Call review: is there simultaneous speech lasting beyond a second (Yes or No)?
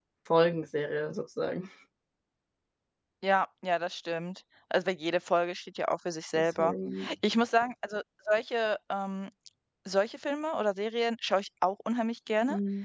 No